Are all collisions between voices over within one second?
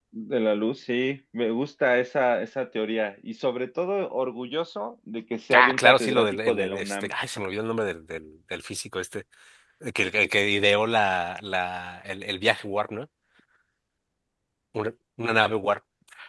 No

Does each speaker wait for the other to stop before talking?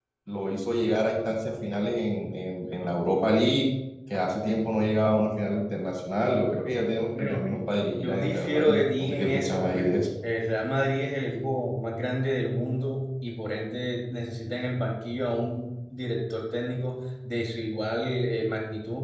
No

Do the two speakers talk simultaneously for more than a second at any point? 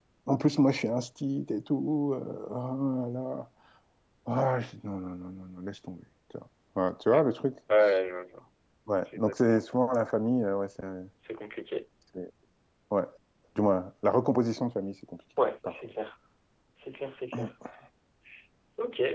No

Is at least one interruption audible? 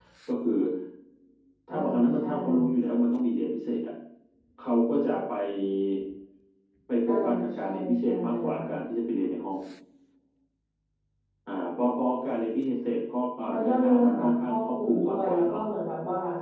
Yes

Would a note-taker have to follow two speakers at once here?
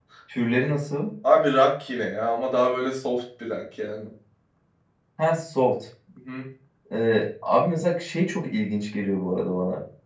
No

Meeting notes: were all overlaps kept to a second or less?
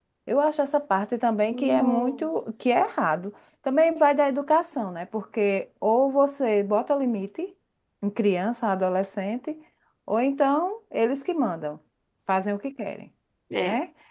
No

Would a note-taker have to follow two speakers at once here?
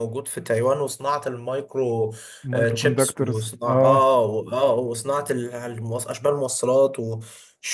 Yes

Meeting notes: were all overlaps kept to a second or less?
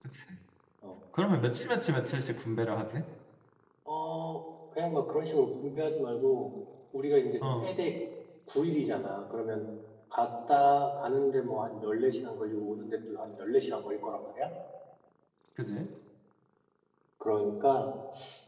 Yes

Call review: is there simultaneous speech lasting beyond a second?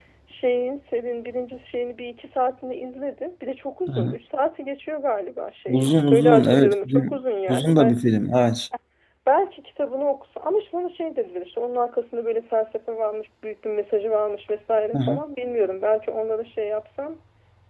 Yes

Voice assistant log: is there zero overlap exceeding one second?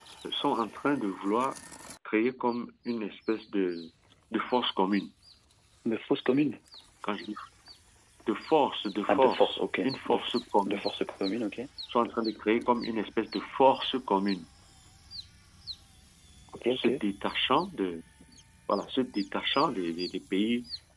No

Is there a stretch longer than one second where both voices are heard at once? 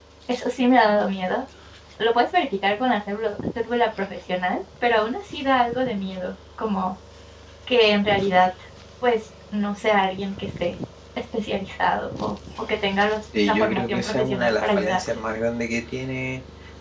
Yes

